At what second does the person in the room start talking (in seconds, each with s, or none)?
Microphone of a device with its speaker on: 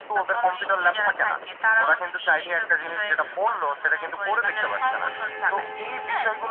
none